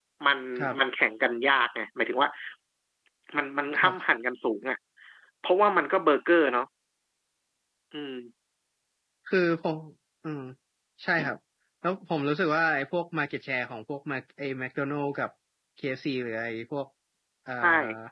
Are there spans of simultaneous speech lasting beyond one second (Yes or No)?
No